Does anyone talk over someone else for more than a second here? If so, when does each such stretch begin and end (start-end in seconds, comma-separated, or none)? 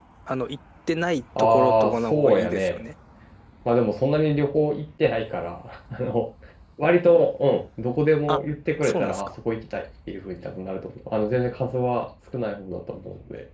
1.4-2.8